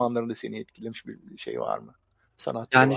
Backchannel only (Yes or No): No